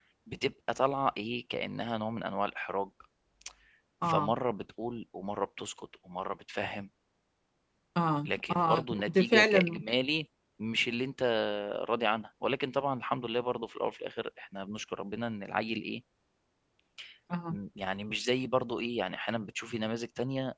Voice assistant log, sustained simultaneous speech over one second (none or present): present